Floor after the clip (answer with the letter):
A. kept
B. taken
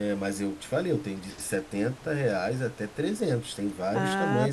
B